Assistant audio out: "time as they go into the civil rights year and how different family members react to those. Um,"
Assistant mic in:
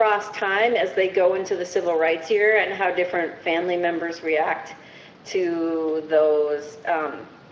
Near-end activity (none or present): none